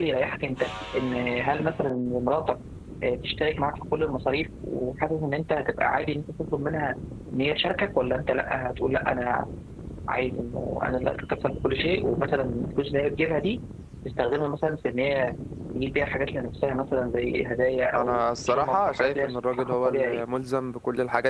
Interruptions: present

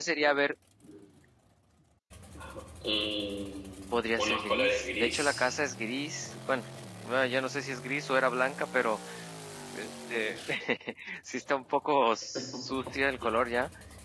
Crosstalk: present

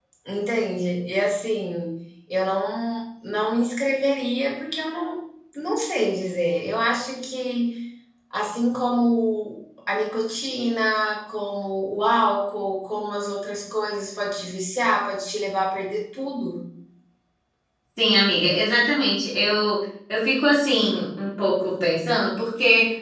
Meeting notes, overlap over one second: none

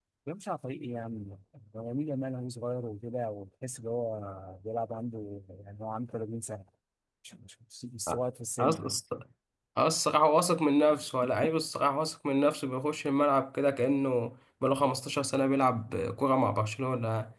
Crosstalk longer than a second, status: none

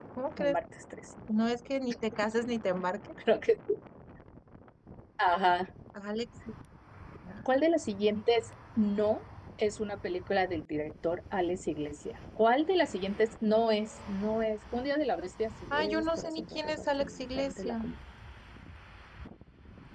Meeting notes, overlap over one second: present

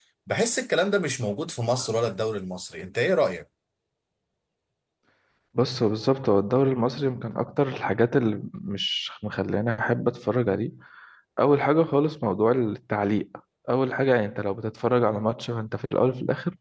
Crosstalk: none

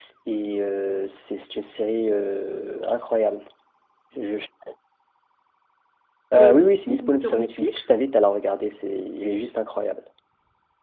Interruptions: present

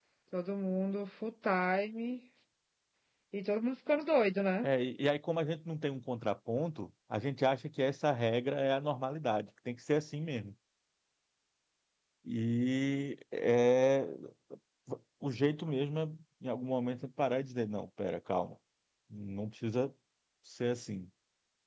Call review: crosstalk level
none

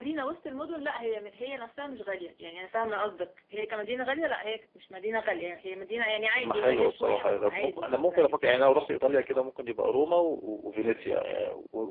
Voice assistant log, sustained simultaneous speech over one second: present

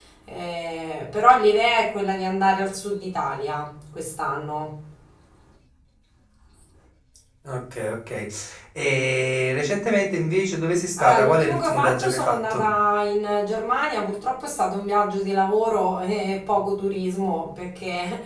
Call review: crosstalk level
present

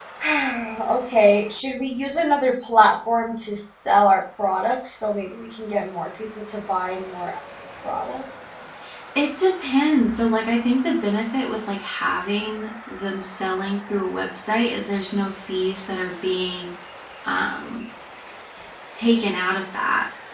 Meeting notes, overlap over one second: none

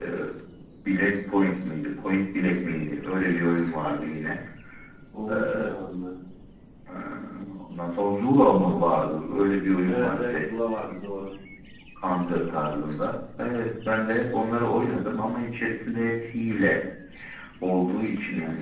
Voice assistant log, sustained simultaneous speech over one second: none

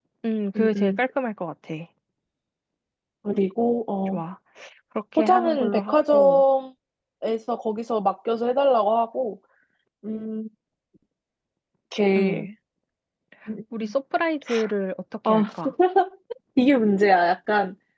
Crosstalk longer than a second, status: present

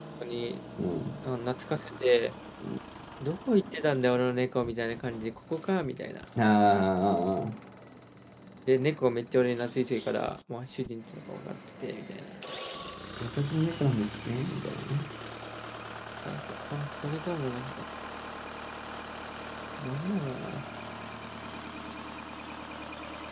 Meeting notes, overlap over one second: none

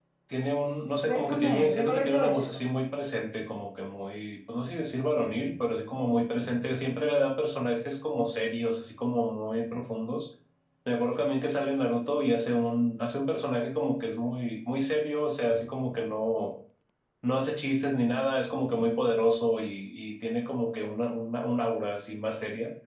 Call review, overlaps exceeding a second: present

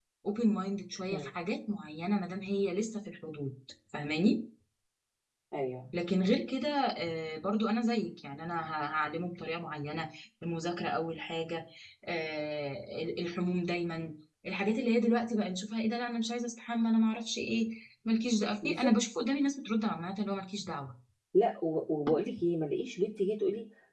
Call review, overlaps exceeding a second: none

